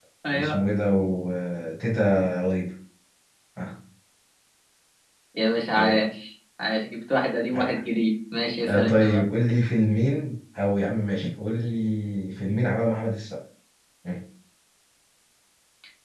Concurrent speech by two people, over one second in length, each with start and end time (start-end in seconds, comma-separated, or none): none